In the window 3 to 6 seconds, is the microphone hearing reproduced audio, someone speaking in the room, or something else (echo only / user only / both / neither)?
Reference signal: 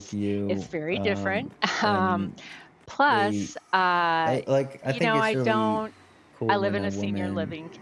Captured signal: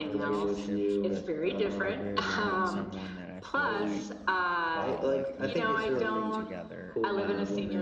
both